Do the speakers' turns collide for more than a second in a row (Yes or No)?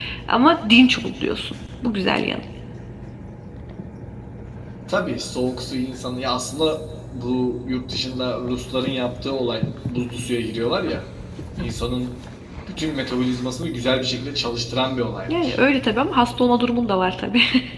No